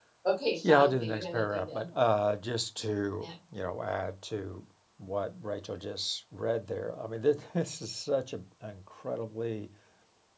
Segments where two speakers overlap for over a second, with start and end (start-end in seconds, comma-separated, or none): 0.6-1.9